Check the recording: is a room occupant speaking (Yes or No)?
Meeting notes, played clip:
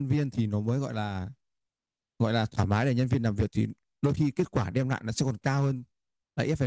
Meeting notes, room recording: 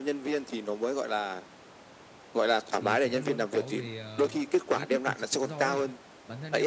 Yes